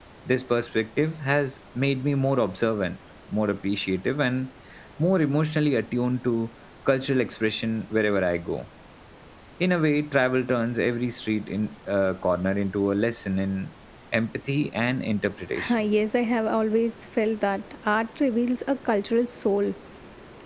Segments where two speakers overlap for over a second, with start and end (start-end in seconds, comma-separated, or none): none